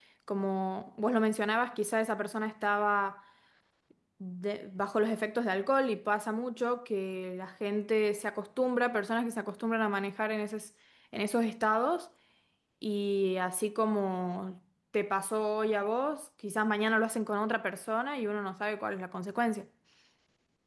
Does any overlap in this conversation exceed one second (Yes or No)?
No